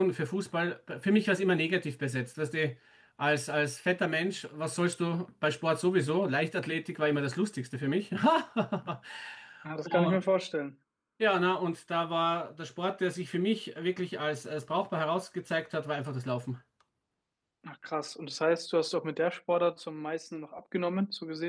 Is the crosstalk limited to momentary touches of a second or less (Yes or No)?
Yes